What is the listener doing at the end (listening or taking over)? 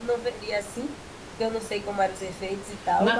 taking over